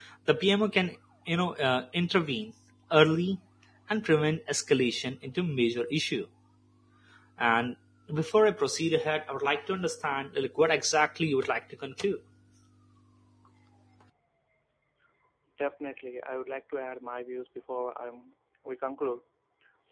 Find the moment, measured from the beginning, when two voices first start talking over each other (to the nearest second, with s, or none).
none